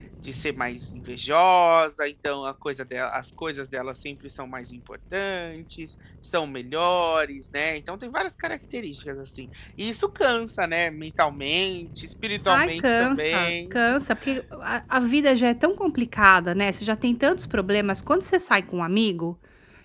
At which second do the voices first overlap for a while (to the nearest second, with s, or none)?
12 s